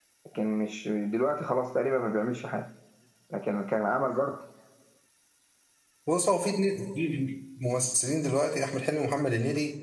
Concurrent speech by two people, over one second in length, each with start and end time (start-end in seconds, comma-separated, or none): none